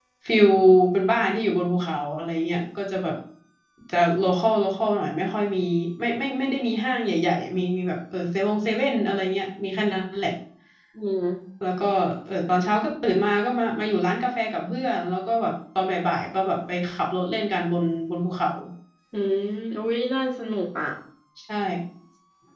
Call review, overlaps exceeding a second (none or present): none